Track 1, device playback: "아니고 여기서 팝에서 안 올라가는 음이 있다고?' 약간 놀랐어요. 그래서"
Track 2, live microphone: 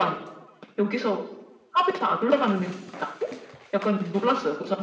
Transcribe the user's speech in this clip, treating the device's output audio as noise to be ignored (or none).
none